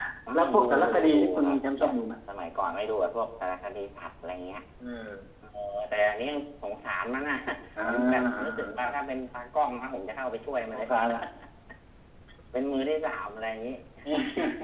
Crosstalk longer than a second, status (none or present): present